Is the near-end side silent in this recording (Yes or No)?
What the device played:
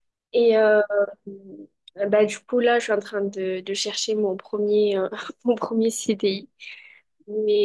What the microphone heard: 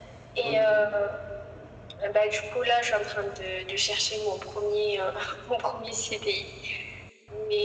No